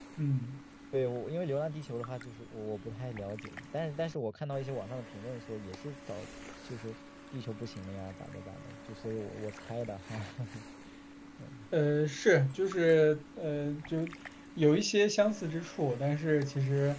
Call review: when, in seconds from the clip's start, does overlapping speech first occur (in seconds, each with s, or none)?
none